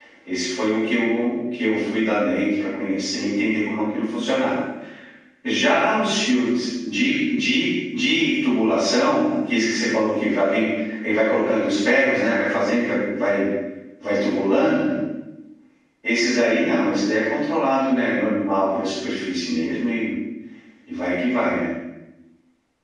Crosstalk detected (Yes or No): No